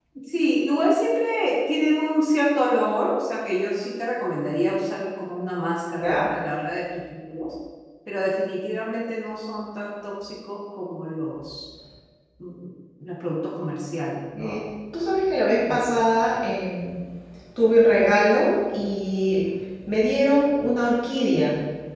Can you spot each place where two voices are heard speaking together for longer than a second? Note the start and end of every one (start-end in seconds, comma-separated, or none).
none